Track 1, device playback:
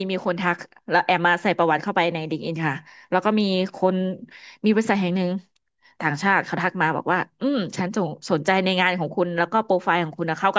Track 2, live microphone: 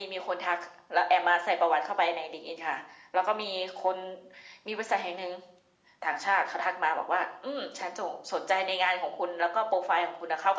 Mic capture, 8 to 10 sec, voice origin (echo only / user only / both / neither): echo only